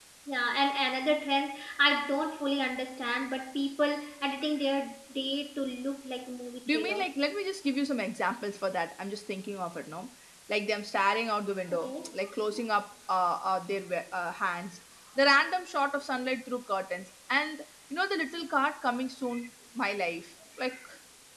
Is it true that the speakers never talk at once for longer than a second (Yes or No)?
Yes